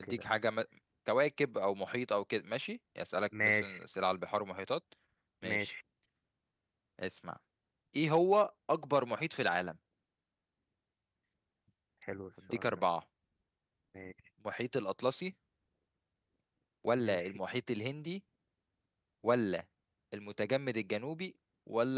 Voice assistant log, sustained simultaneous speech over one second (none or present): none